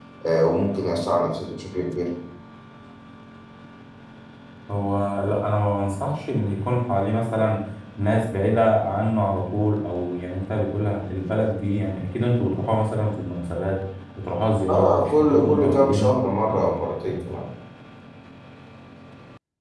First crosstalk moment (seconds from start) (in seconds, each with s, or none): 14.7 s